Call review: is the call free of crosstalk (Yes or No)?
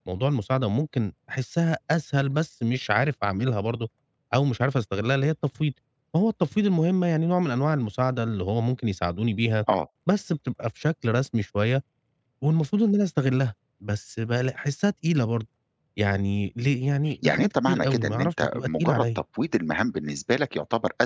No